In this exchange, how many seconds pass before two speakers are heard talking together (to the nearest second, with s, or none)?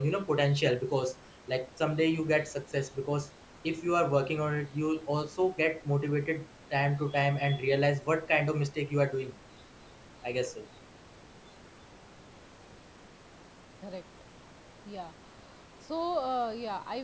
none